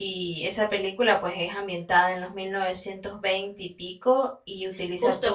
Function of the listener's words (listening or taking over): taking over